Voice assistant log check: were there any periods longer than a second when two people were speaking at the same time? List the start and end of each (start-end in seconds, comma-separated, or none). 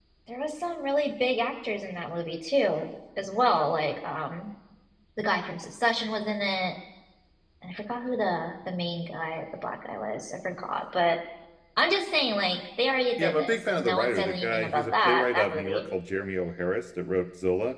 13.2-15.9